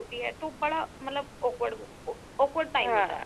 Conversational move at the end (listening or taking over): listening